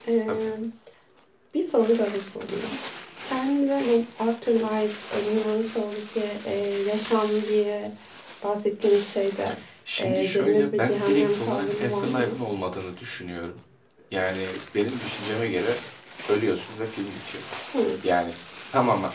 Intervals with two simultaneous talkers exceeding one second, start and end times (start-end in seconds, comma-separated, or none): 10.0-12.4